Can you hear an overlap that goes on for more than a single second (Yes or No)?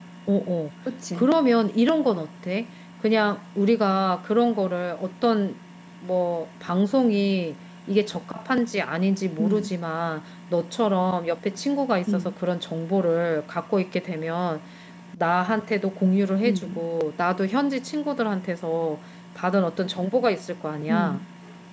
No